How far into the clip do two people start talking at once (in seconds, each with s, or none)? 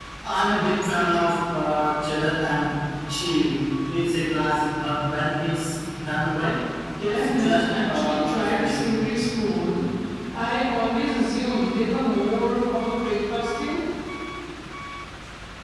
7.1 s